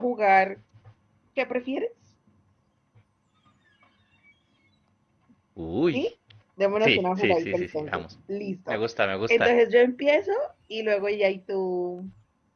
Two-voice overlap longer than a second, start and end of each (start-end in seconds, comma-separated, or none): 6.8-8.0